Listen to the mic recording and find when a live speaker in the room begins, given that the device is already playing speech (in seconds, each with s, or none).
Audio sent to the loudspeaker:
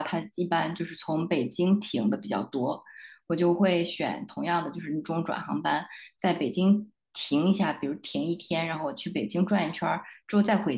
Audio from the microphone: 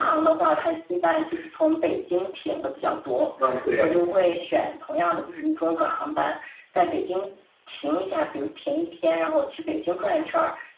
3.4 s